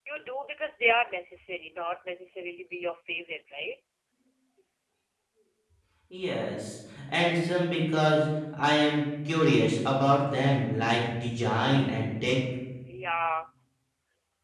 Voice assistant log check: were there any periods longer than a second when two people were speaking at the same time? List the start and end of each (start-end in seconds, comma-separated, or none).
none